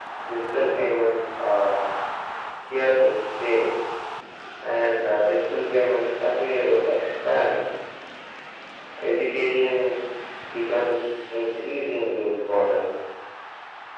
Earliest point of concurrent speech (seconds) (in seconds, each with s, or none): none